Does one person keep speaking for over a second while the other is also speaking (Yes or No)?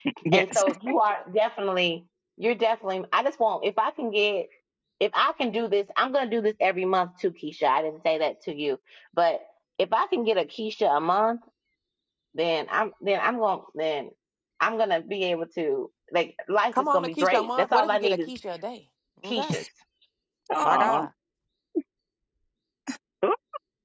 Yes